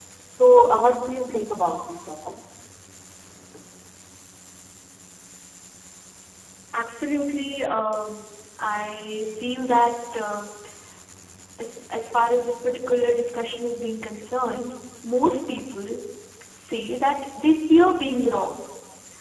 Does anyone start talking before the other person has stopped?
No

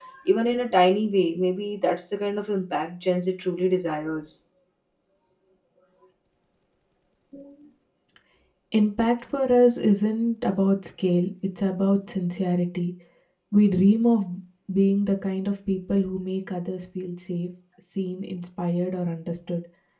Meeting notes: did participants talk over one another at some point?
No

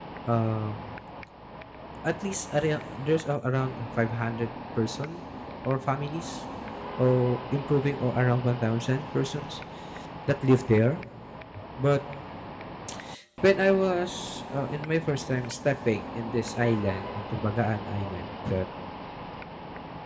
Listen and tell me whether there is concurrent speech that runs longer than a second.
No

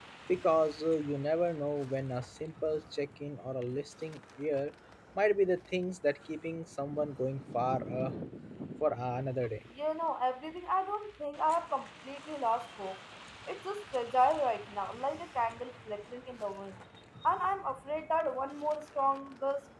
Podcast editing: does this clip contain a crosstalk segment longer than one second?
No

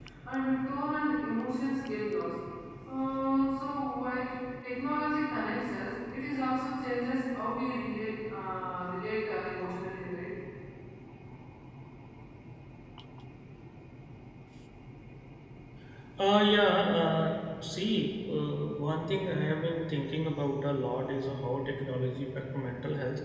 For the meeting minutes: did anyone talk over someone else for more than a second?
No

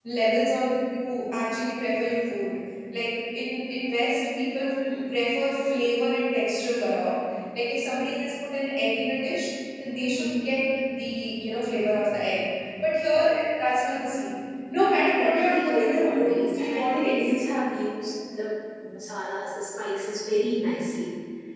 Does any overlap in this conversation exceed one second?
Yes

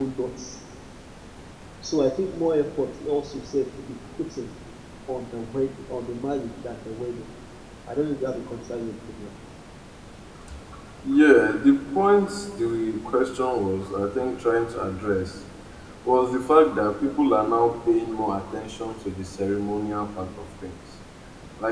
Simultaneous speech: No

